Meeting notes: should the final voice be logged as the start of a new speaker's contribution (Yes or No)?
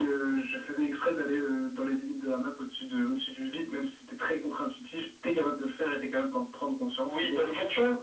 Yes